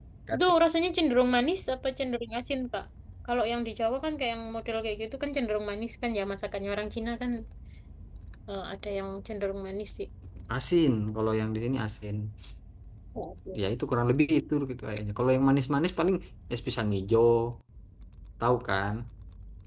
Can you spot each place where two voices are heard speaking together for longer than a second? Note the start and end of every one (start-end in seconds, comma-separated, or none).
none